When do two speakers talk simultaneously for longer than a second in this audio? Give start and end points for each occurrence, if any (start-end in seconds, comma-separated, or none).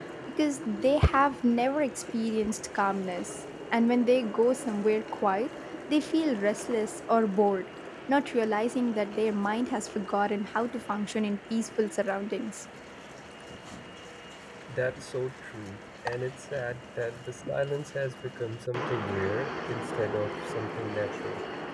none